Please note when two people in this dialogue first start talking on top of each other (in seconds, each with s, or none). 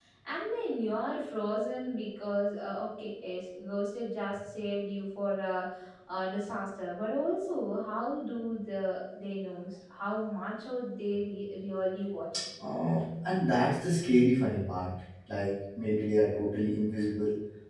none